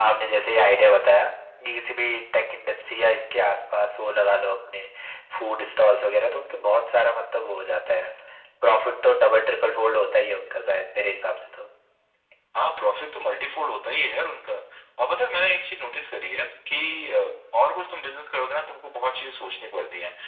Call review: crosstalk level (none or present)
none